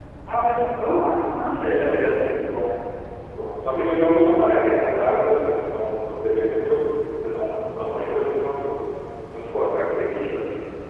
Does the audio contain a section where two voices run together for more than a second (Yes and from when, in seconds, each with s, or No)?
No